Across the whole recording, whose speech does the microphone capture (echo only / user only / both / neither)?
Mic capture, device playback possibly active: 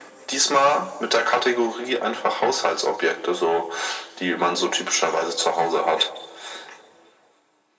echo only